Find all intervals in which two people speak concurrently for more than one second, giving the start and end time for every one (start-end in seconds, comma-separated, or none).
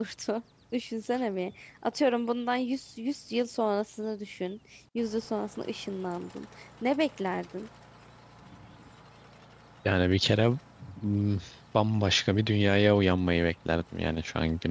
none